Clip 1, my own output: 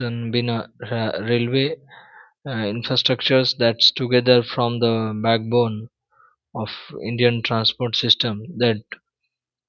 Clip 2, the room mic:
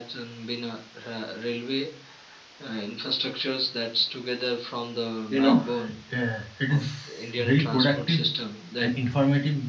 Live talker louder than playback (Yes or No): Yes